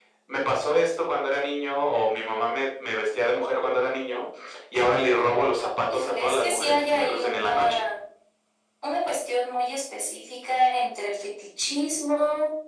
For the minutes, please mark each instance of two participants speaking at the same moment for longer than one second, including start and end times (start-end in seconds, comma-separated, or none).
5.9-7.8